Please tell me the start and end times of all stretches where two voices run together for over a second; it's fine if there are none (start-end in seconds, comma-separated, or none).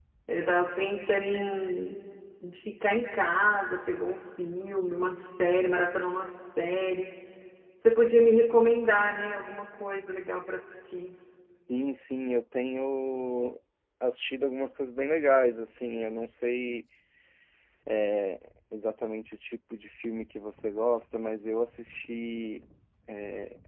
none